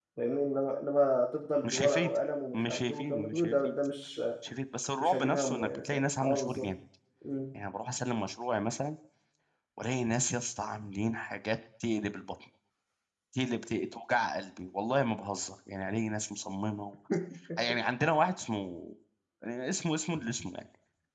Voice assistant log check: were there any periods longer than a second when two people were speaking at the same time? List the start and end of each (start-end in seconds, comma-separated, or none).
2.5-3.7, 5.0-6.7